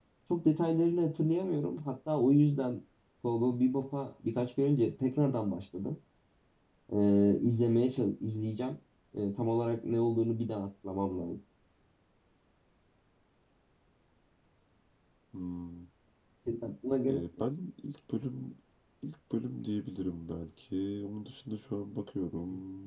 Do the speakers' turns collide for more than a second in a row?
No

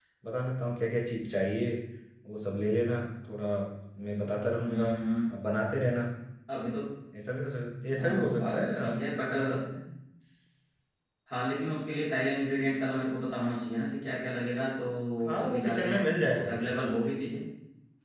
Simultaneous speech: Yes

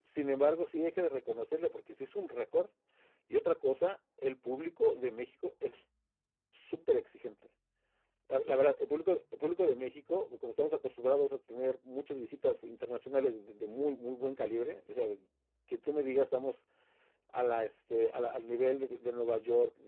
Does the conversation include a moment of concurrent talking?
No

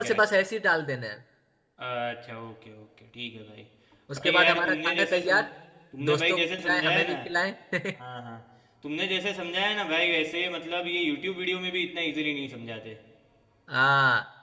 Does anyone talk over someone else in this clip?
Yes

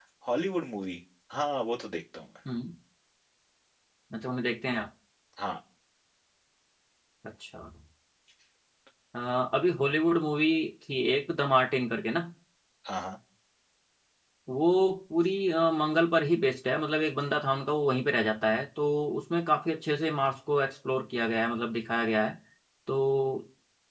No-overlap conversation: Yes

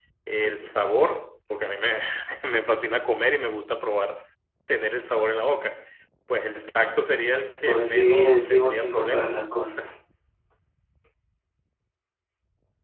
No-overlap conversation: No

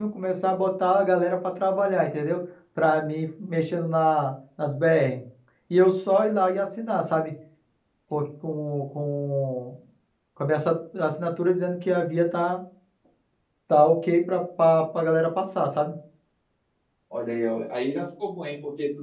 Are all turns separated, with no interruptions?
Yes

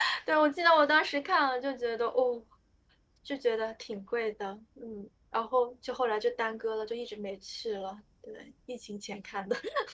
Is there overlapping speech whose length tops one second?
No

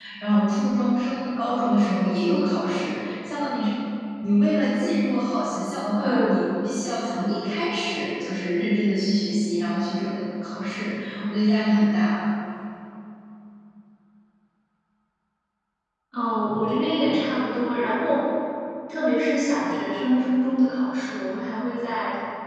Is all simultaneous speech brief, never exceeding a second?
Yes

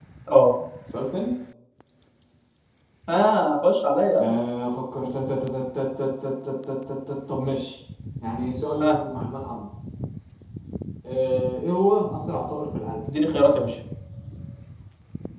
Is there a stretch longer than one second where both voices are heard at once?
No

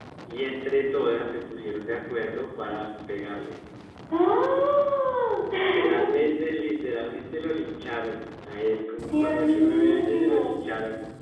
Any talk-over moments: Yes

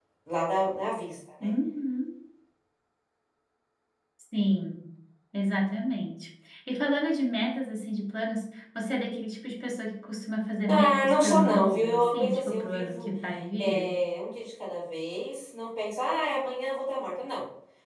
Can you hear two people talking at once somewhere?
Yes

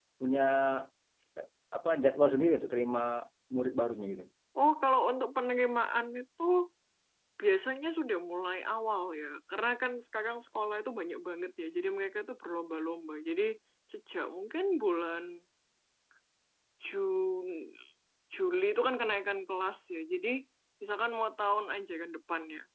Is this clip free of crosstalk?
Yes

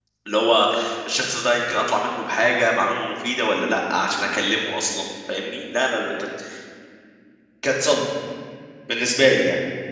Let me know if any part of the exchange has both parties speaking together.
No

